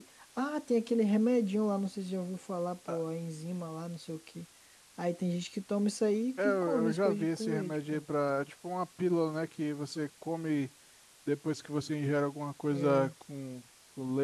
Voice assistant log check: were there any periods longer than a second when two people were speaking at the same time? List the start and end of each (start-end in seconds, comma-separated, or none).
6.4-8.0